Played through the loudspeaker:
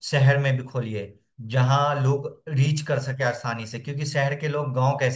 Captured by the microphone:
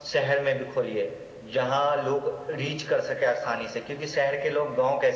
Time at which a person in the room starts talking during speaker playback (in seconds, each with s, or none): none